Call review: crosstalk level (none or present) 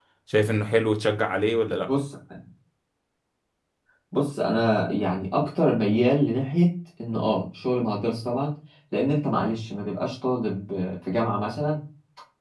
none